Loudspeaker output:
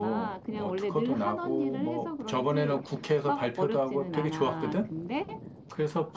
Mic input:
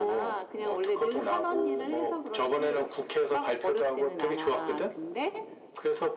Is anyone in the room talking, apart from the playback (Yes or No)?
No